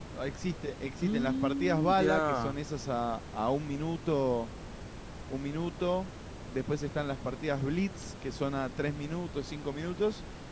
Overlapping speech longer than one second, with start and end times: 1.0-2.6

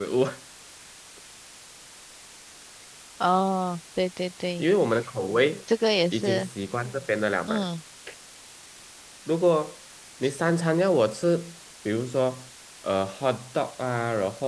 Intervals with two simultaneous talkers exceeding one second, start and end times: none

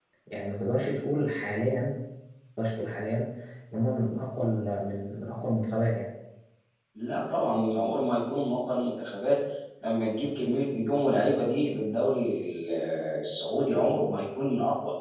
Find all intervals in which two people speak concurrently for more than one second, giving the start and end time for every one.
none

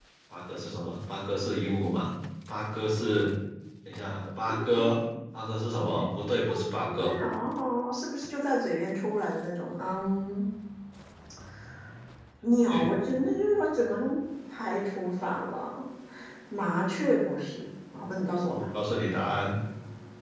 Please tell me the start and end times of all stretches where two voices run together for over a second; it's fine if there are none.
none

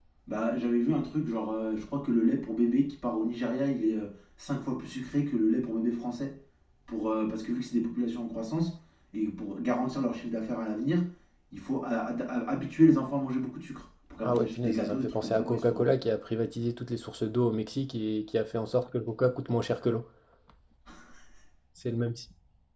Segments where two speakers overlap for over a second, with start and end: 14.2-15.9

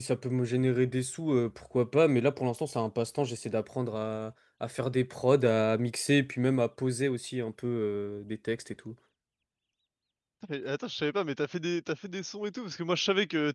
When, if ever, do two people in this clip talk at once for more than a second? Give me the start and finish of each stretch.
none

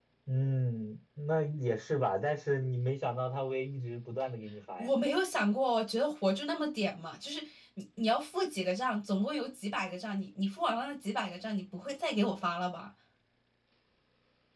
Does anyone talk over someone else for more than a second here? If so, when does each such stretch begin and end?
none

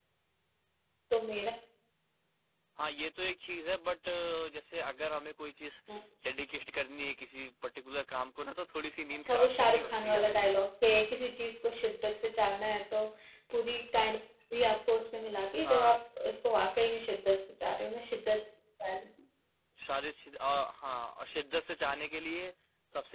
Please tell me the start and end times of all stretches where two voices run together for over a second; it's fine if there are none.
9.2-10.6

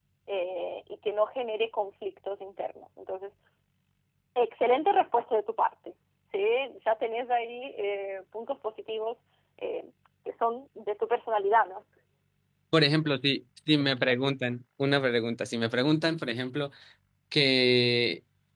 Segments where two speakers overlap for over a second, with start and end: none

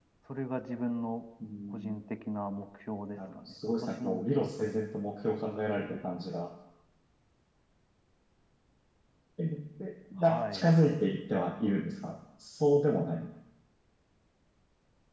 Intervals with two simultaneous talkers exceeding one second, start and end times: 3.2-4.8

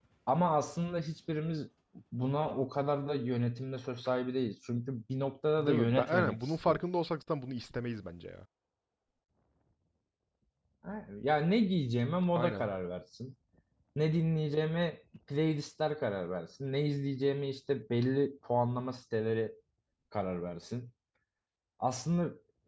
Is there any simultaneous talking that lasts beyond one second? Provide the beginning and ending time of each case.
5.6-6.8

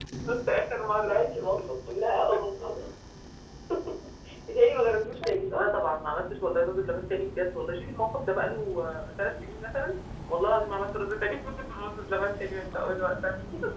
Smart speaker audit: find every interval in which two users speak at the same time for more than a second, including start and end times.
none

